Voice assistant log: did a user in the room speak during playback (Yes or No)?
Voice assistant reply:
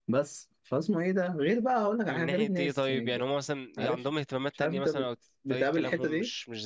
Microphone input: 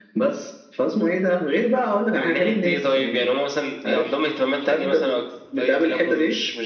No